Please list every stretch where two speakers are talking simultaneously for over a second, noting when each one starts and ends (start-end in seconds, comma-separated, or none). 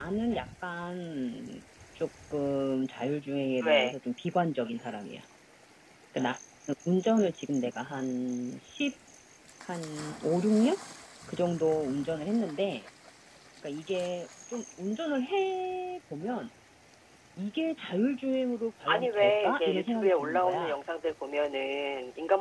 18.9-20.8